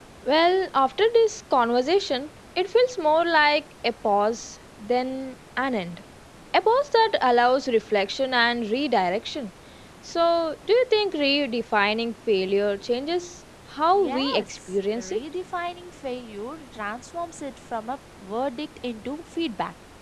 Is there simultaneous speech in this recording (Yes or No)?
Yes